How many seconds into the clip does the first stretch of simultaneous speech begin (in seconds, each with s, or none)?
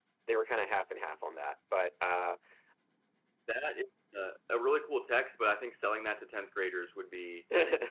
none